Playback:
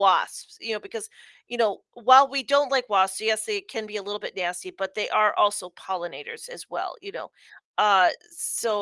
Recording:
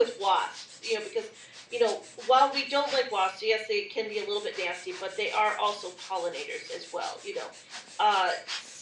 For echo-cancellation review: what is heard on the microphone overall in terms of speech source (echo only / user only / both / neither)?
echo only